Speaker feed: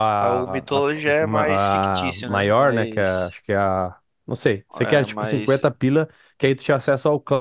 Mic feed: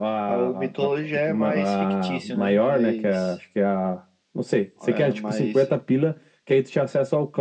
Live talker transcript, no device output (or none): none